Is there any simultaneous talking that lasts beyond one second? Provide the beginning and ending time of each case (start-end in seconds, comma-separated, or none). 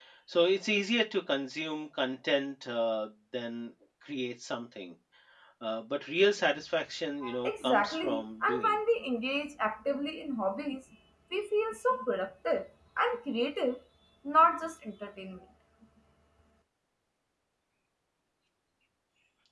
7.4-8.8